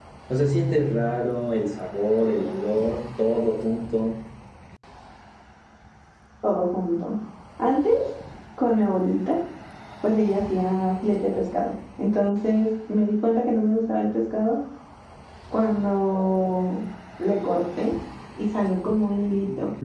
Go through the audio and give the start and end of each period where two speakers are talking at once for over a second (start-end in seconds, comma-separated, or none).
none